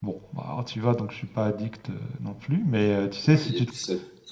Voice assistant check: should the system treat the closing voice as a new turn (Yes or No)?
Yes